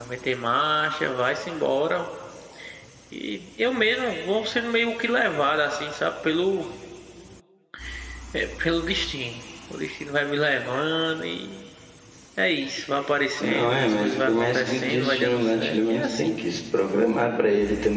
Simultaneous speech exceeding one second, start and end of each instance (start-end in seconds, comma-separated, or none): 13.4-16.4